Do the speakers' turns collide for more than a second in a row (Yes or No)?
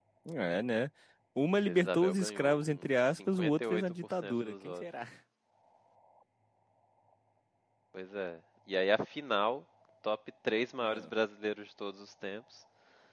Yes